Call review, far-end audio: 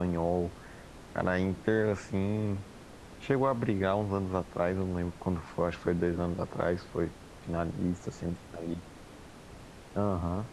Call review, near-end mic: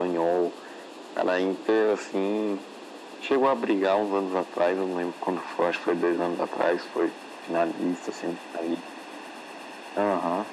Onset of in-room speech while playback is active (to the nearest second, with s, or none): none